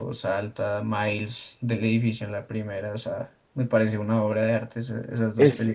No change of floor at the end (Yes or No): No